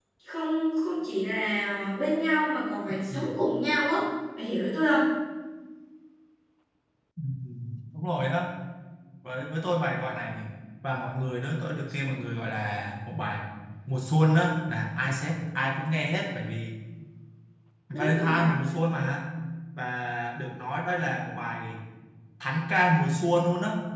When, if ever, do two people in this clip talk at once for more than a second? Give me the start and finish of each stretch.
none

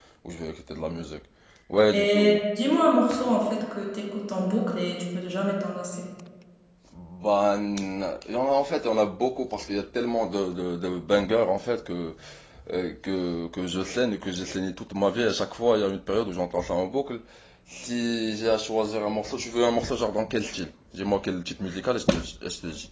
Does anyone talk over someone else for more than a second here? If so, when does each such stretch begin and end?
none

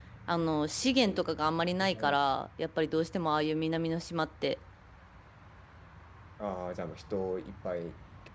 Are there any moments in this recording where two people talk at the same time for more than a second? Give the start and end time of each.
none

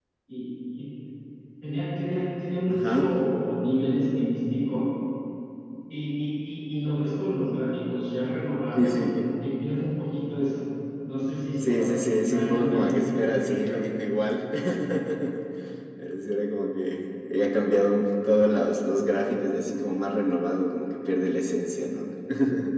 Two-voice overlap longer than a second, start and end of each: 11.6-13.8

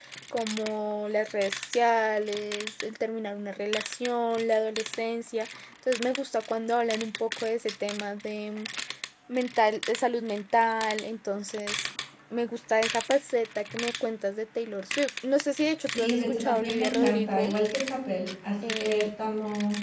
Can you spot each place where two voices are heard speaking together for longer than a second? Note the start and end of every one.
15.8-17.6

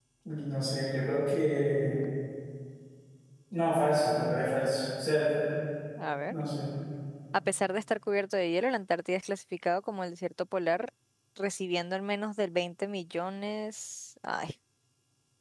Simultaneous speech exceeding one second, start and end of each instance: none

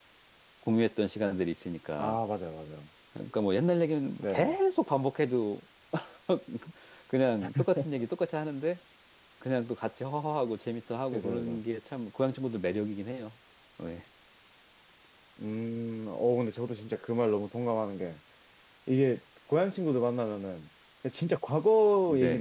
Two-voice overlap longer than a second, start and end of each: none

